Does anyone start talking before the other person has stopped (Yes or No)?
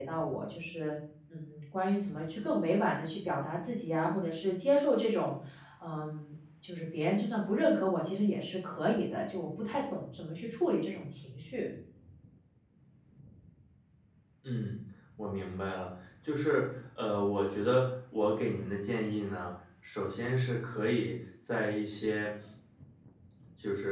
No